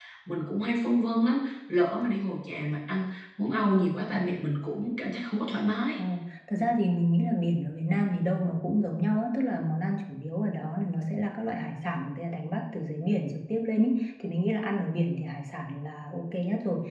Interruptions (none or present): none